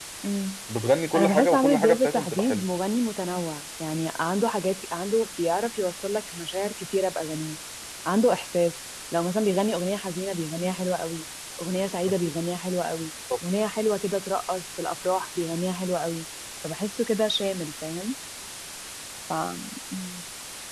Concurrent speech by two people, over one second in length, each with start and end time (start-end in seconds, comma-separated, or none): 1.2-2.6